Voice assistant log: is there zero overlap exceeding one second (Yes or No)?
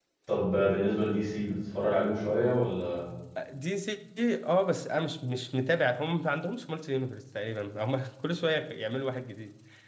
Yes